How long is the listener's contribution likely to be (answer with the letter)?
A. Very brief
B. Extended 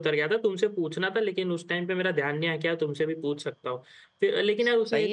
B